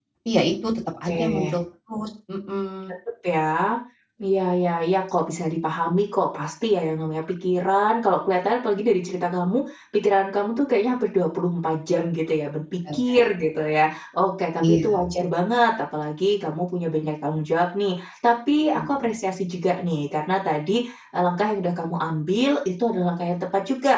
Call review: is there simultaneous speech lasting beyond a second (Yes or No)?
No